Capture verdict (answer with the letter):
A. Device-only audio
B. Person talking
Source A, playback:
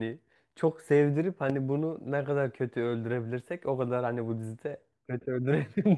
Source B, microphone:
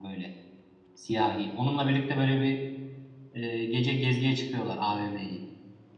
B